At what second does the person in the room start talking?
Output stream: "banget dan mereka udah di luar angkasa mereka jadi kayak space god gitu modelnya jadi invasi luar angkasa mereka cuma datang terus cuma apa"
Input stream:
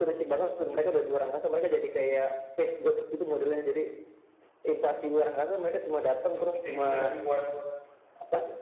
6.4 s

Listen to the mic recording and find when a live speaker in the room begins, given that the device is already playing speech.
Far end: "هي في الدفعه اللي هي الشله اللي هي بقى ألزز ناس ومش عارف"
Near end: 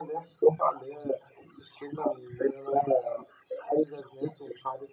none

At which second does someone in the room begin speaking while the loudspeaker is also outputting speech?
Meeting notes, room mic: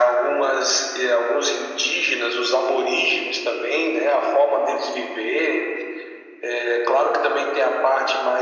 none

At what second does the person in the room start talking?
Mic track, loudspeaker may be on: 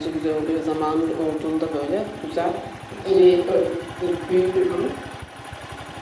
none

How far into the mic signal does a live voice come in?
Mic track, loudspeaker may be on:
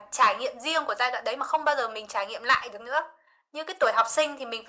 none

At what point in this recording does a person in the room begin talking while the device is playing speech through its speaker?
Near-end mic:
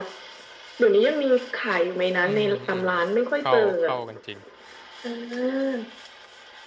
2.2 s

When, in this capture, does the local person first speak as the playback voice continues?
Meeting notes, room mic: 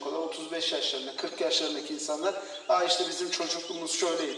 none

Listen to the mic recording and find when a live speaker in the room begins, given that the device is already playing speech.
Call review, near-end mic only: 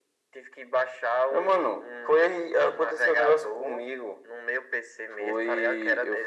none

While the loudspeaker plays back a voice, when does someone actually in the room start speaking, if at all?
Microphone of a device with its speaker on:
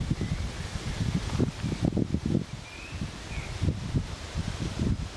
none

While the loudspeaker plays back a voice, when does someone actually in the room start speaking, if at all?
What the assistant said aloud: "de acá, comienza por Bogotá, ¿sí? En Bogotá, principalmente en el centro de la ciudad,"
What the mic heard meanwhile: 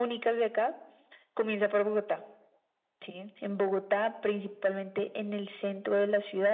none

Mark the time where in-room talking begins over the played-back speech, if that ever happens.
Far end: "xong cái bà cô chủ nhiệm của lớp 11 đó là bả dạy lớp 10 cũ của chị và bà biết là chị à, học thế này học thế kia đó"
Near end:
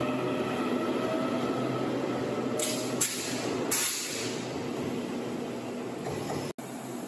none

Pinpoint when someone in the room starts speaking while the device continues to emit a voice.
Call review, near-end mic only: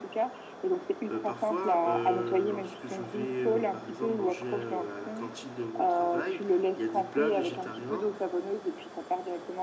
1.1 s

